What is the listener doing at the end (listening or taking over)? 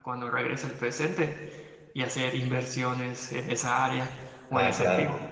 taking over